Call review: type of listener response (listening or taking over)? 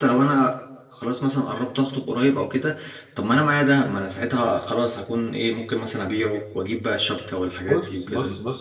taking over